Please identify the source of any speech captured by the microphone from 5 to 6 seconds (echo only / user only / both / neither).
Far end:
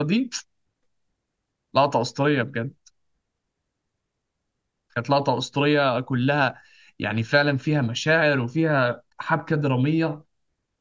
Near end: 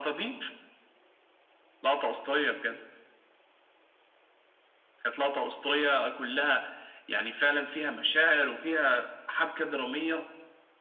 echo only